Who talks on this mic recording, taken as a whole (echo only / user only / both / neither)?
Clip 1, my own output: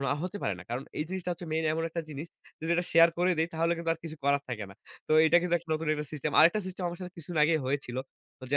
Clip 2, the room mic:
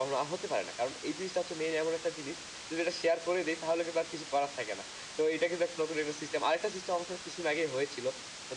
echo only